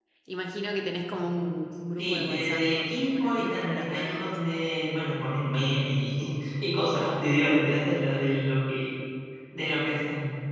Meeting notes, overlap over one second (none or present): present